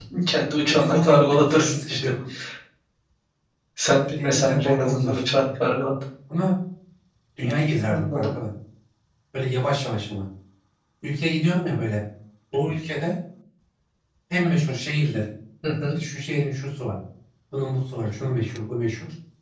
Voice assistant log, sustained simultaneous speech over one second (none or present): present